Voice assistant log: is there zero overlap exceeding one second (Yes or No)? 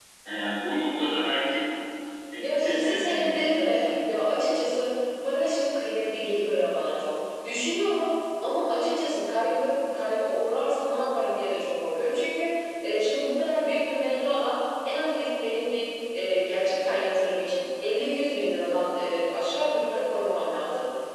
No